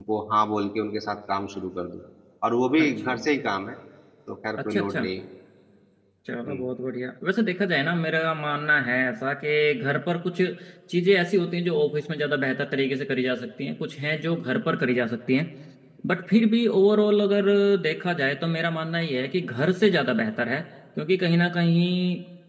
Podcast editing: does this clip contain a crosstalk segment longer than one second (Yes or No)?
No